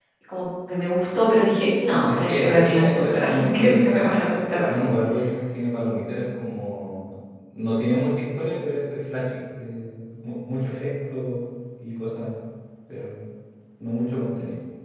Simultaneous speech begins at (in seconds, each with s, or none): 2.1 s